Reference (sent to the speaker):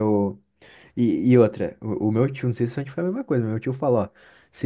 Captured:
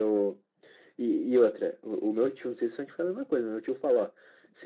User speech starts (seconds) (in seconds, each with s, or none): none